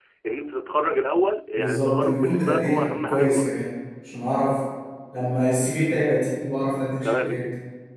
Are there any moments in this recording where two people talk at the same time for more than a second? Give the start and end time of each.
1.6-3.5

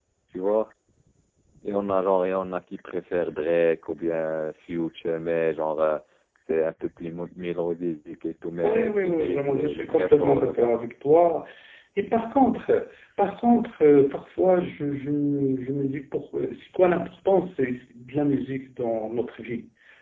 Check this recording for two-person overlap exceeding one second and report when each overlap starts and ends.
8.6-10.7

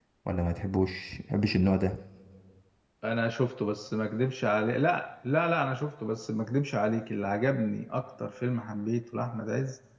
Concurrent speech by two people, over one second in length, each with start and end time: none

